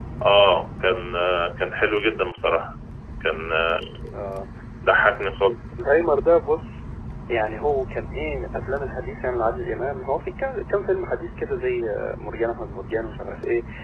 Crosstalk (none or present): none